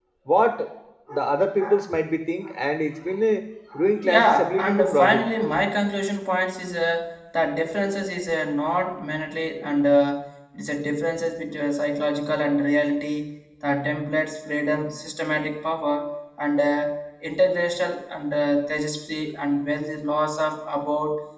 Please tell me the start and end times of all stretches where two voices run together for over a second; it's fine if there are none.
4.0-5.3

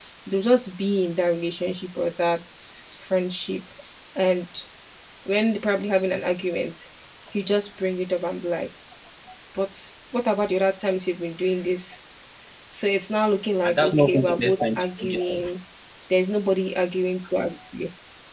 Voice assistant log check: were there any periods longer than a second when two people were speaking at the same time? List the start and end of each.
13.6-15.5

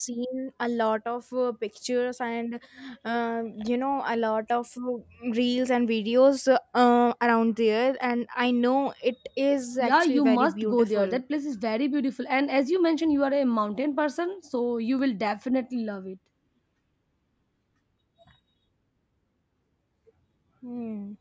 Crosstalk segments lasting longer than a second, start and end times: 9.8-11.2

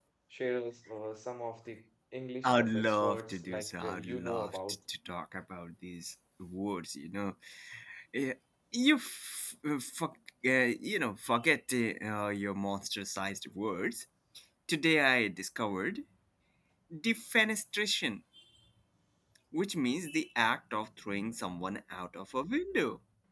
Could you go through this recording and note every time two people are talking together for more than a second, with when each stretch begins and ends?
2.4-4.6

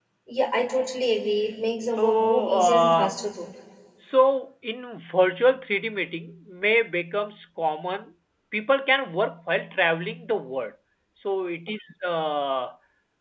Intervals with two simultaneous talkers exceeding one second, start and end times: 1.9-3.1

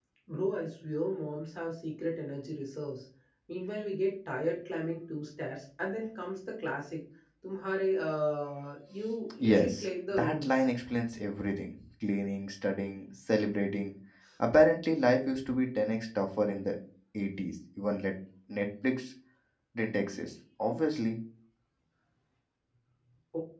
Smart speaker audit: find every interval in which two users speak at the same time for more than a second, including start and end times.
9.4-10.7

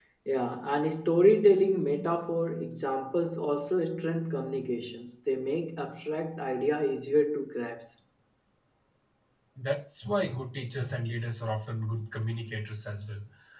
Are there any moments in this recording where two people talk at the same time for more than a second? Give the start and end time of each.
none

